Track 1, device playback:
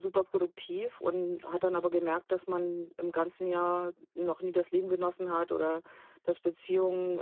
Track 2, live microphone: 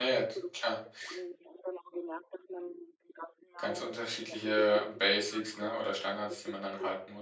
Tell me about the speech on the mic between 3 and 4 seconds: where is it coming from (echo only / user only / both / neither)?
both